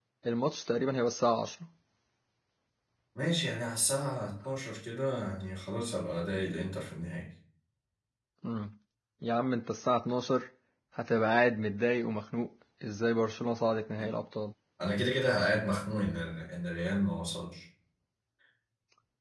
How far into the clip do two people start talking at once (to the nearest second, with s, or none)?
none